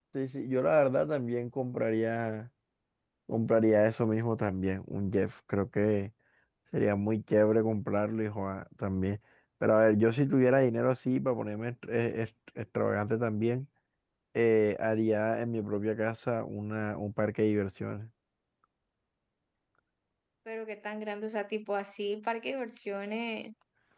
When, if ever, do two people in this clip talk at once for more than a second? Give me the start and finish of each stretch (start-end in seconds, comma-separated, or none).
none